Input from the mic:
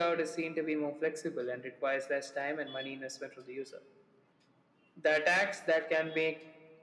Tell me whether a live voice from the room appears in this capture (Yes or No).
No